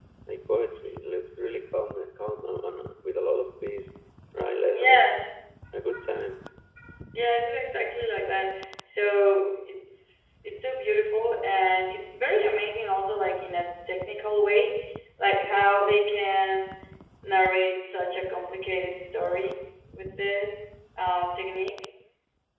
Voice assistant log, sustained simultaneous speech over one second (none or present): none